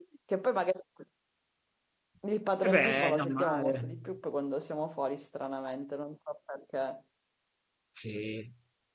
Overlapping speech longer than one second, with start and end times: 2.6-4.0

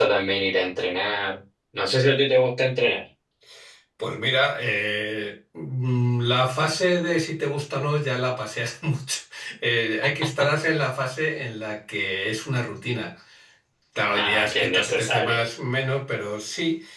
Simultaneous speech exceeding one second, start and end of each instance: 14.1-15.4

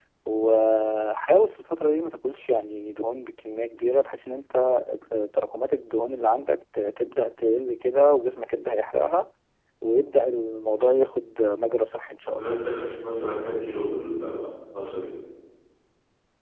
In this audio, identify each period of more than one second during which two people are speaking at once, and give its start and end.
none

